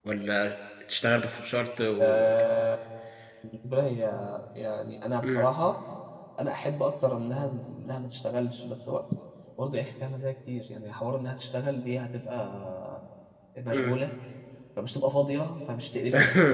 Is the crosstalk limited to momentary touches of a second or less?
Yes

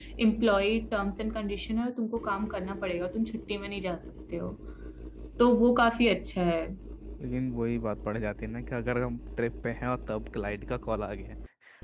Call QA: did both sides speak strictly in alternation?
Yes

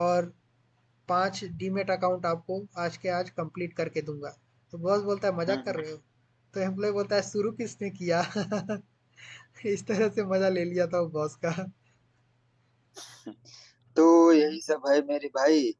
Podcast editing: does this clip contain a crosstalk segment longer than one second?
No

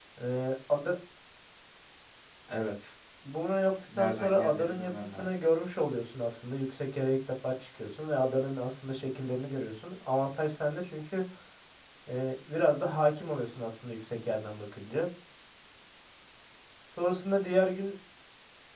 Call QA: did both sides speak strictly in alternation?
No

